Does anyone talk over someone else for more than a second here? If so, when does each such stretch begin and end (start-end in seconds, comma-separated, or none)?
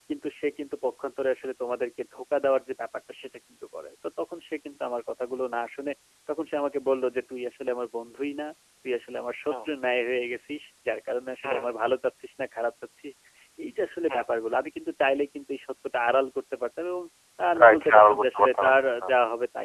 17.6-19.1